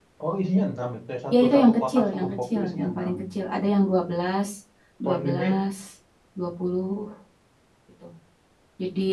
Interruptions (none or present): present